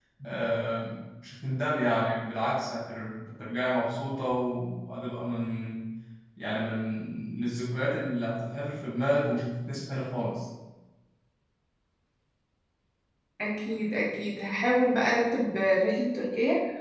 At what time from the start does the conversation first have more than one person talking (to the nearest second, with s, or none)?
none